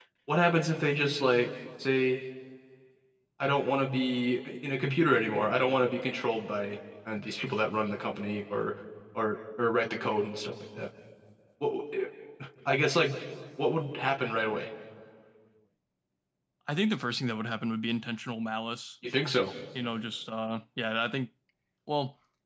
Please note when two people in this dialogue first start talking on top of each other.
none

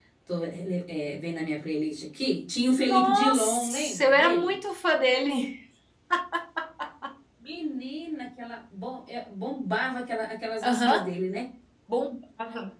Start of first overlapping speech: 3 s

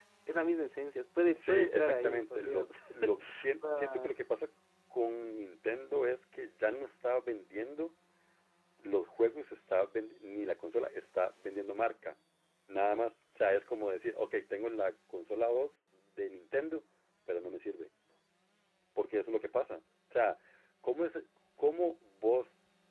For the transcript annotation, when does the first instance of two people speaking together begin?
1 s

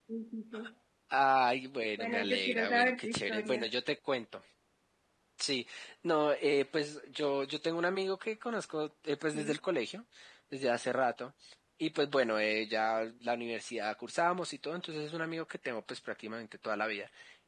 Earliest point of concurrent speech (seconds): 2 s

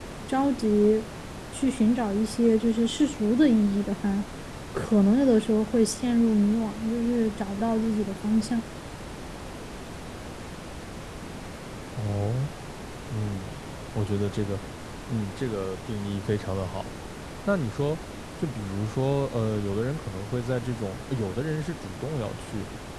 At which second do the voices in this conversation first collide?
none

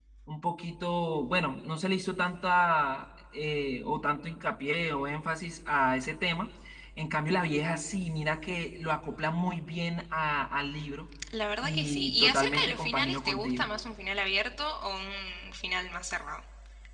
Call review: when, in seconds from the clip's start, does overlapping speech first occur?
12 s

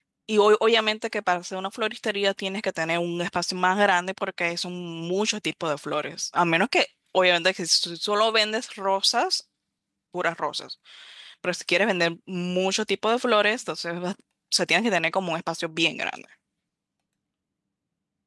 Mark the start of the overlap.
none

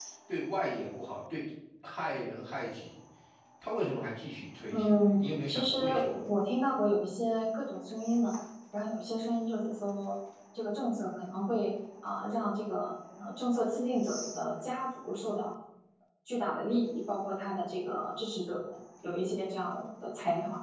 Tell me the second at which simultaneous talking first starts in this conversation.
5 s

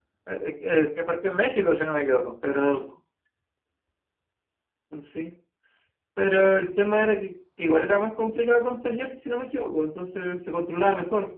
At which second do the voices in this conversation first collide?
none

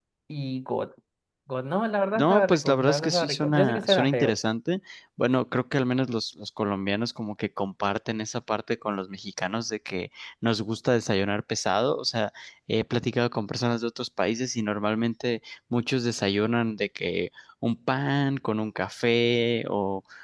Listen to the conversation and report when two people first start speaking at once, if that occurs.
2 s

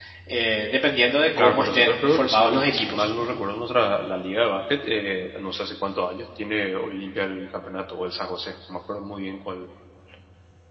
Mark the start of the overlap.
1 s

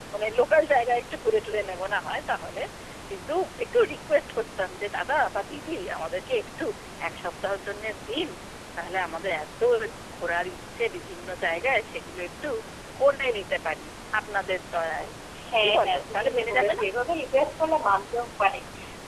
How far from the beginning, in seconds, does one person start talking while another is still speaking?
16 s

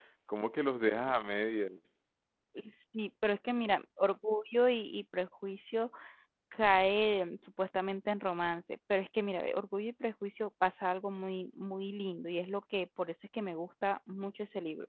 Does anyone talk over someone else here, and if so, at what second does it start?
none

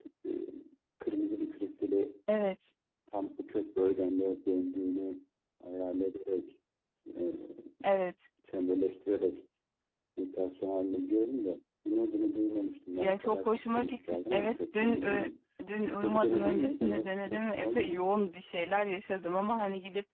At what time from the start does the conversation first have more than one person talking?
13 s

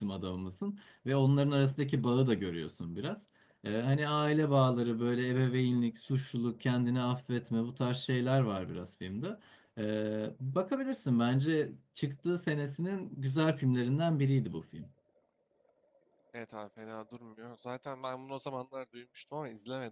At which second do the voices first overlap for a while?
none

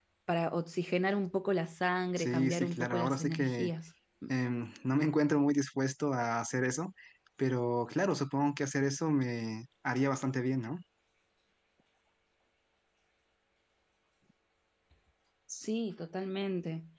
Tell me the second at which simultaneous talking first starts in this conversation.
2 s

